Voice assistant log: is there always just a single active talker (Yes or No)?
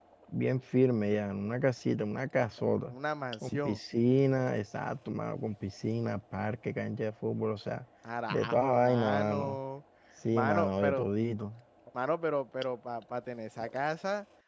No